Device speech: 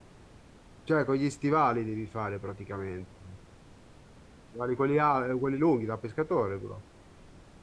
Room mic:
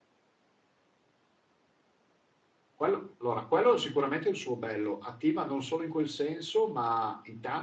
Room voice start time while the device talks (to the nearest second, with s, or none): 3 s